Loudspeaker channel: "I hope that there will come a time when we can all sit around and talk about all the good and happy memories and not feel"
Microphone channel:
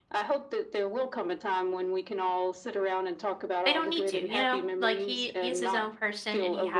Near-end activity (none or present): present